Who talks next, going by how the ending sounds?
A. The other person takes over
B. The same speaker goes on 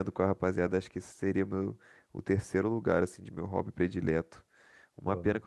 B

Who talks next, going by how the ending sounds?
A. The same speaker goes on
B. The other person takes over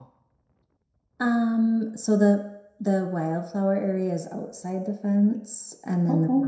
A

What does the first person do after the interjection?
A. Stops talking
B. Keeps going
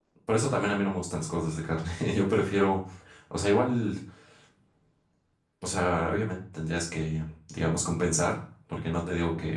B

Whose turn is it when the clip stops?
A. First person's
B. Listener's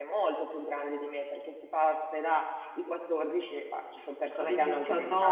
B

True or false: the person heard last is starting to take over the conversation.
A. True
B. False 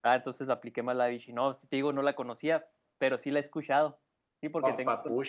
A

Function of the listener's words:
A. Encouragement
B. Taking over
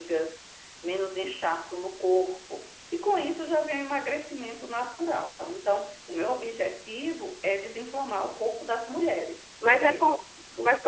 B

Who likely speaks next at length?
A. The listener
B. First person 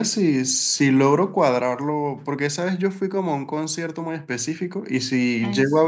B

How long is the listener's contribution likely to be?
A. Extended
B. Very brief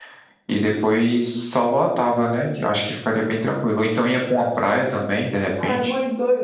A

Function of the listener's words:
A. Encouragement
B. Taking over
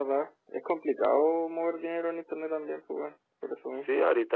B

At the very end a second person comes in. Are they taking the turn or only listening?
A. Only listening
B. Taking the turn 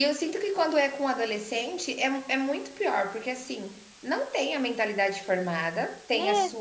A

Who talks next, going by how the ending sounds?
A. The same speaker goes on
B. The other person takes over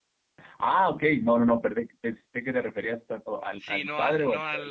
B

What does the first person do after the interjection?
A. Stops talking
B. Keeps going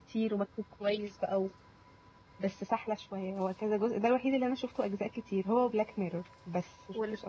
A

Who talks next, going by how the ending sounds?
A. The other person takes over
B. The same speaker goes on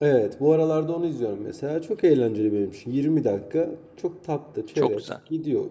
B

